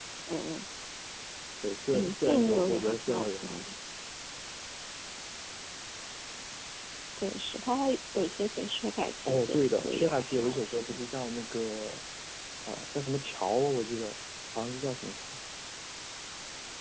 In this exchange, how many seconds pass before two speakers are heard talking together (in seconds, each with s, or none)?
1.9 s